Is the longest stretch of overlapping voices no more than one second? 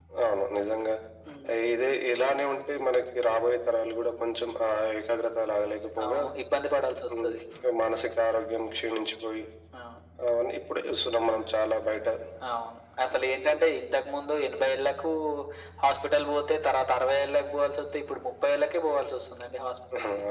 Yes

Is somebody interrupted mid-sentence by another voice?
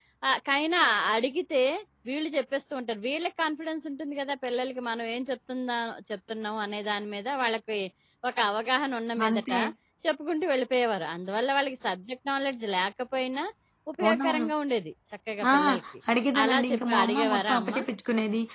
Yes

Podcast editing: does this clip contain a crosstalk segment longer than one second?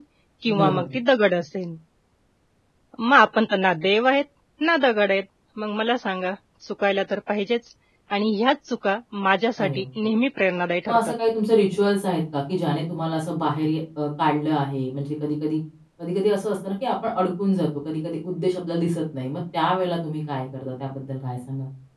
No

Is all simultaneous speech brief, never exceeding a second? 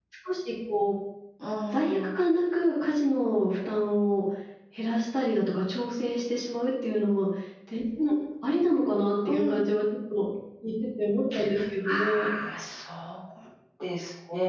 Yes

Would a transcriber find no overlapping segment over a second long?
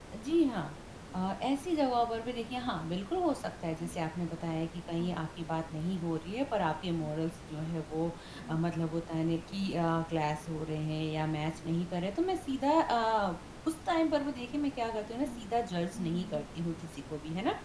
Yes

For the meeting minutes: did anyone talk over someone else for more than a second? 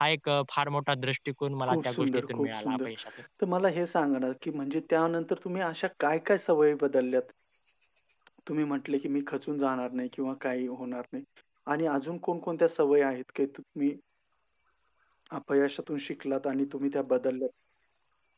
Yes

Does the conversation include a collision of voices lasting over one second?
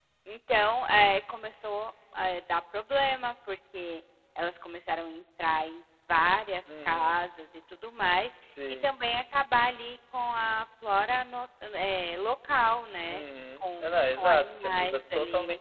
Yes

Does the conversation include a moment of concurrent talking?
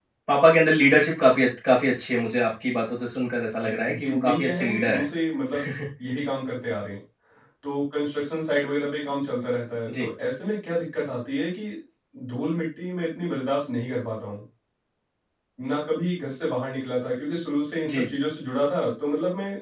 Yes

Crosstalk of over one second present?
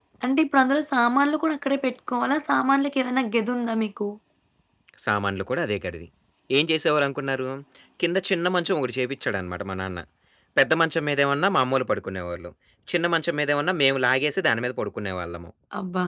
No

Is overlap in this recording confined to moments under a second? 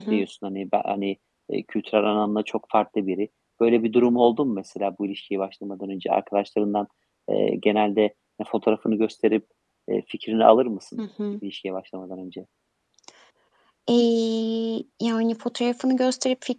Yes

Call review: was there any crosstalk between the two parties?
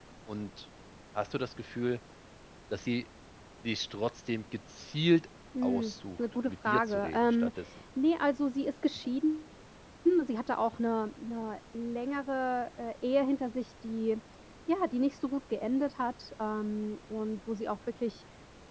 Yes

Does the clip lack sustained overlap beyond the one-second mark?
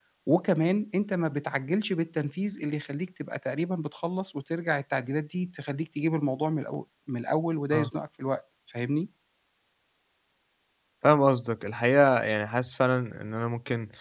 Yes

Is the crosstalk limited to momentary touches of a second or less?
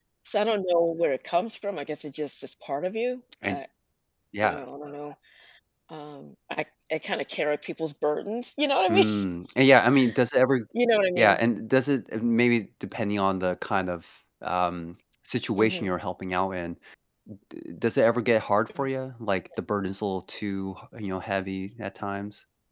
Yes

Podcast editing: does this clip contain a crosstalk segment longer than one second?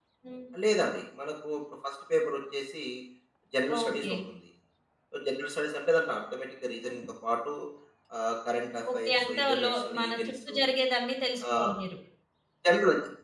Yes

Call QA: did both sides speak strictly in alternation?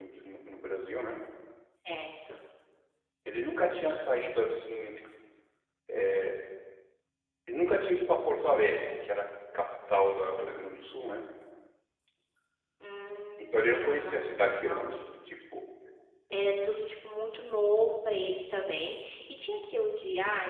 No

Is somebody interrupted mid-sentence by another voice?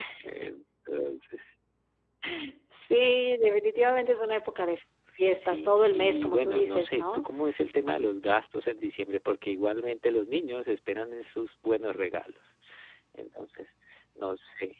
Yes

